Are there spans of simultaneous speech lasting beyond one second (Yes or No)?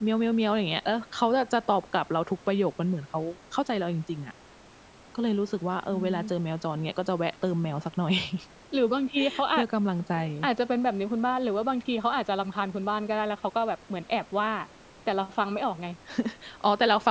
No